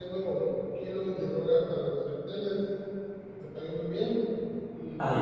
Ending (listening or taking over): listening